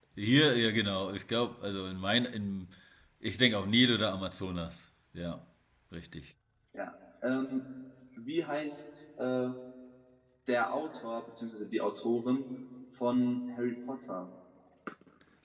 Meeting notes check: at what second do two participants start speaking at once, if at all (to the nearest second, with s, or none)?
none